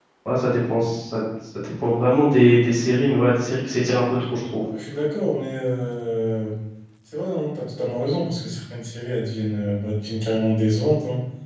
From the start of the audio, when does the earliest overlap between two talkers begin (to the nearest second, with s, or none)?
none